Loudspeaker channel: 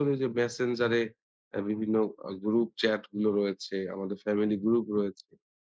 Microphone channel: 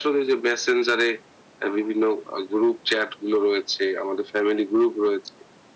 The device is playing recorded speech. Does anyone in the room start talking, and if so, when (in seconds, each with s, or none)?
none